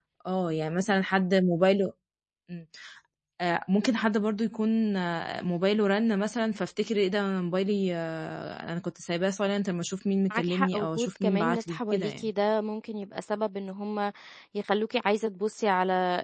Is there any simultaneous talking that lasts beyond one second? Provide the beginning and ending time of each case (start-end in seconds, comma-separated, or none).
10.3-12.3